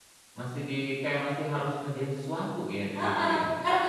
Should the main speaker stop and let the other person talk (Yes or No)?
Yes